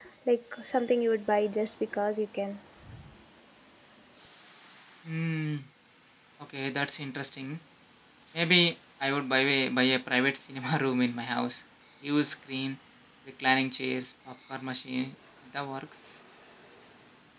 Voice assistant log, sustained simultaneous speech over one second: none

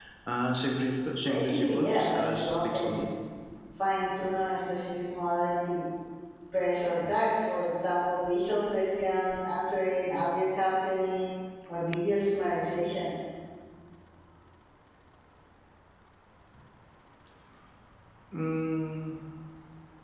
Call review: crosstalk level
present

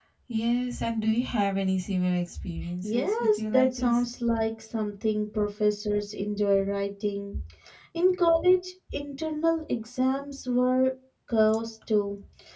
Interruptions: present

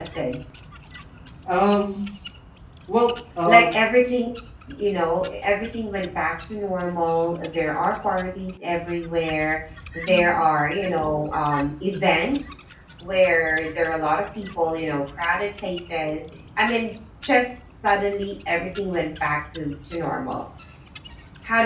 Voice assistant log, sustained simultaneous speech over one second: none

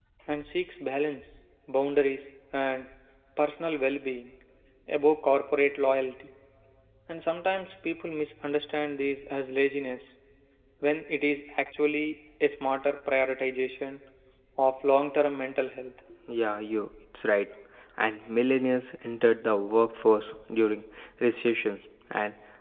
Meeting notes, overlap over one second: none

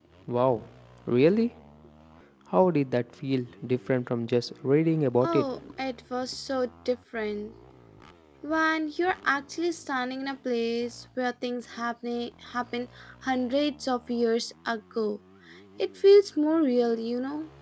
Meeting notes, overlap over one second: none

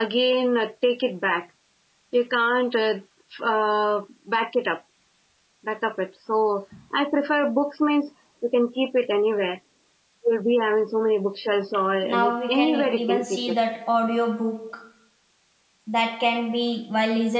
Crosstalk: present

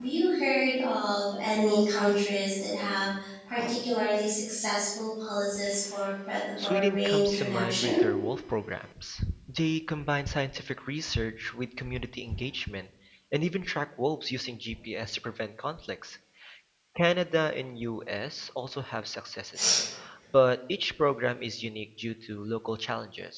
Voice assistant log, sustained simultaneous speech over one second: present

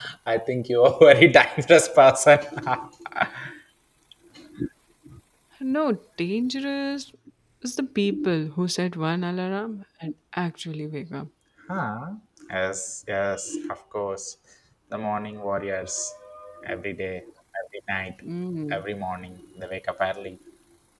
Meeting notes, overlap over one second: none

